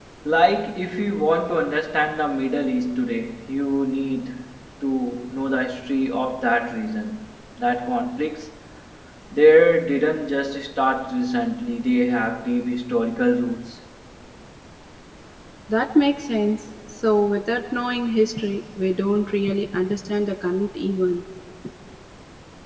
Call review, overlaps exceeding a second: none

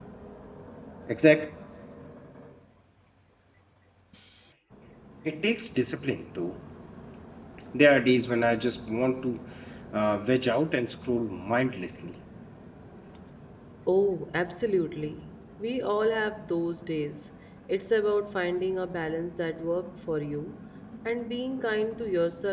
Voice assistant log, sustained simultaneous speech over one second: none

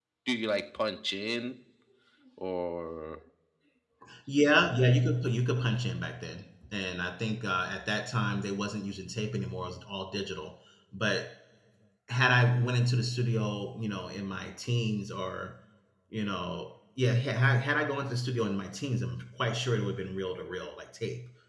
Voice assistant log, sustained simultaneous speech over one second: none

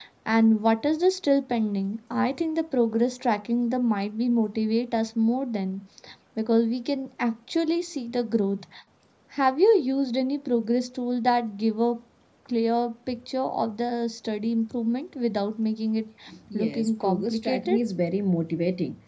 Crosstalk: present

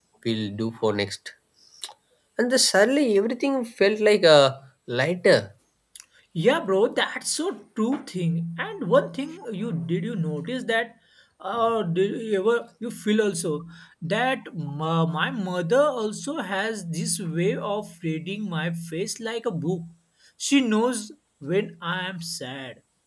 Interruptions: none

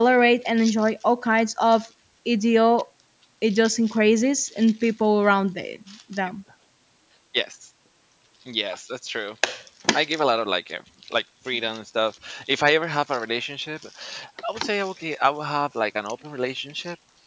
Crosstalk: none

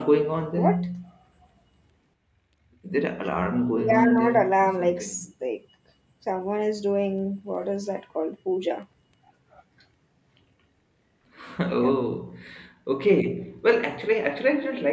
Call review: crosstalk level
present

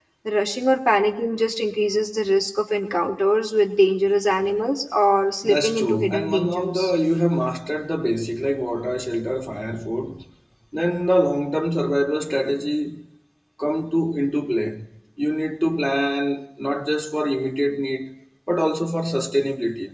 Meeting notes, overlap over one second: present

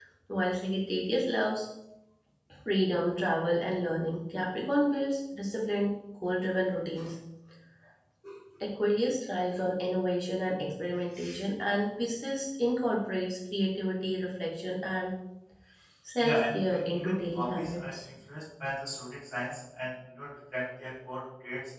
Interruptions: present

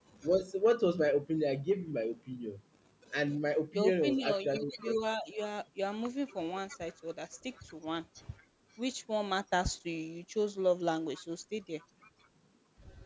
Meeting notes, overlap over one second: present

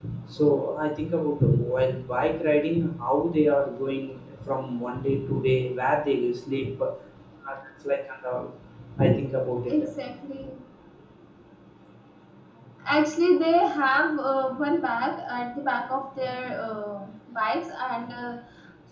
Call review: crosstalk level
none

